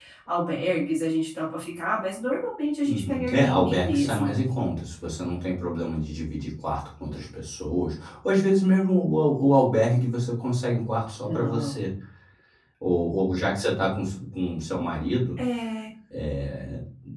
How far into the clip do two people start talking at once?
2.8 s

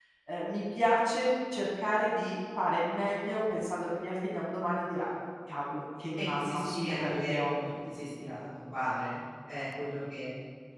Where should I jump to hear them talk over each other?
6.2 s

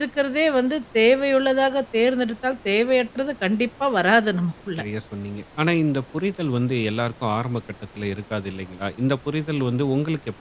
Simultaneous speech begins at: none

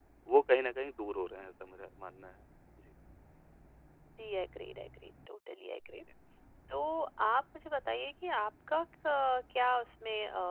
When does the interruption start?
none

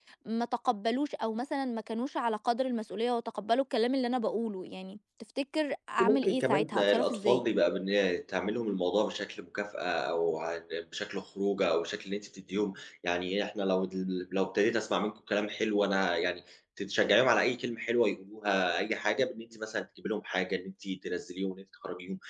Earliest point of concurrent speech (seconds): 6.0 s

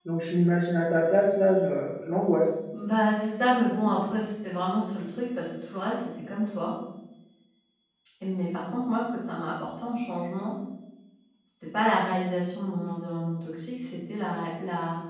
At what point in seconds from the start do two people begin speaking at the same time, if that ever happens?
none

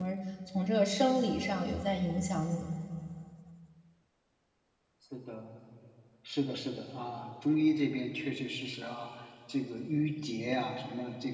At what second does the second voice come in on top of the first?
none

